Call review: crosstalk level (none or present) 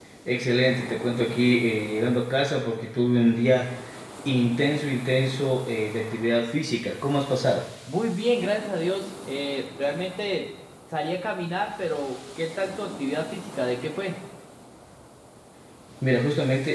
none